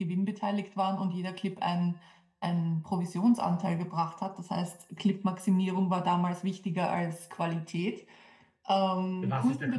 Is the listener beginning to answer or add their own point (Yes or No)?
Yes